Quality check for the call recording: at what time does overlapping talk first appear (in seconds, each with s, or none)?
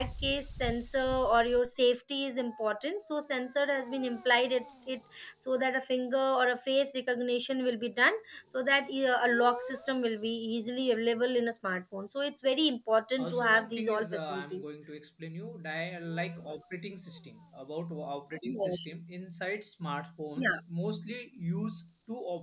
13.2 s